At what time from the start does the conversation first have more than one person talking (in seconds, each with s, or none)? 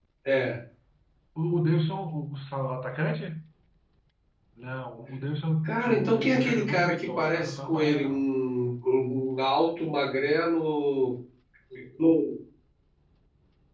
5.6 s